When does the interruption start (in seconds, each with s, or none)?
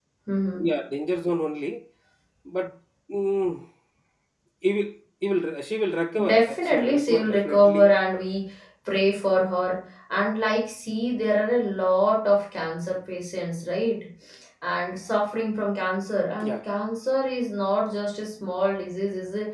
6.2 s